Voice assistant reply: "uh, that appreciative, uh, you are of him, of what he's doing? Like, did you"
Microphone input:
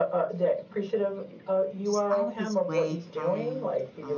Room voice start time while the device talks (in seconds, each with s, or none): 1.8 s